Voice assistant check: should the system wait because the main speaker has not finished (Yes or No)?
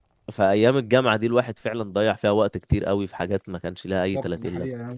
No